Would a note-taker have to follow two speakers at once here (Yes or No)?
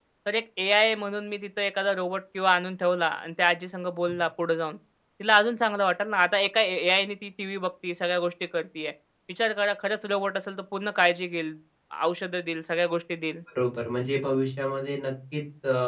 No